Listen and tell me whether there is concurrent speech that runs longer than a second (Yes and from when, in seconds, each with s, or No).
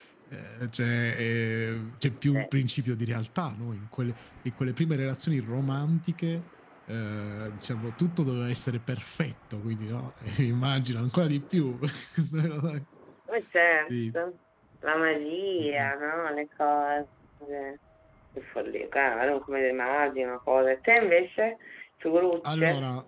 No